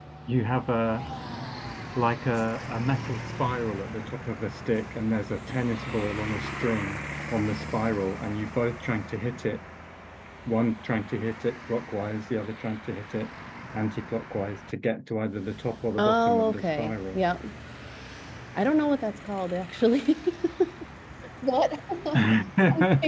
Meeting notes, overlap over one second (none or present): present